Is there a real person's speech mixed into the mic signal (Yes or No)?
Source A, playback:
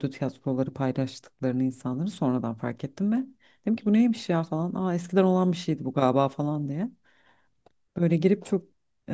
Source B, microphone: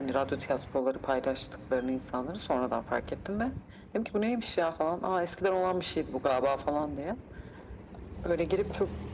No